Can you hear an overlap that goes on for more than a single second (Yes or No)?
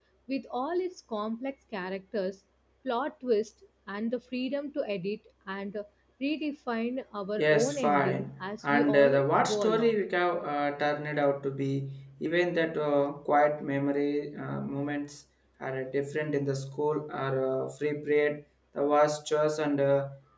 Yes